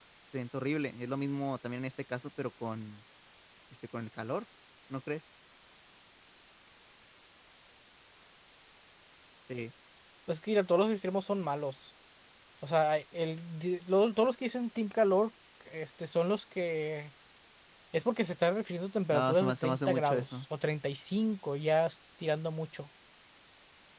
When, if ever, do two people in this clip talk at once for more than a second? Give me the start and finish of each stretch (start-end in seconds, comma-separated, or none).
19.1-20.4